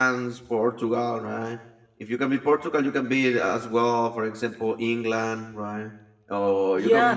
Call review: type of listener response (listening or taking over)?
listening